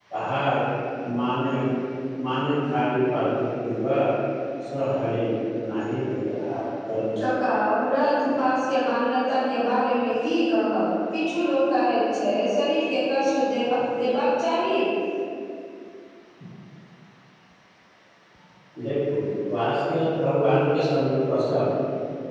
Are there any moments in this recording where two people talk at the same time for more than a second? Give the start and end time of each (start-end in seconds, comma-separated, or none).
none